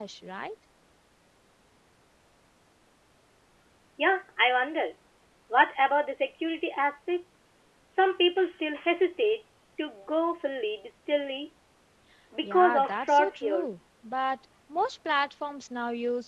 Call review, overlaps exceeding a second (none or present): present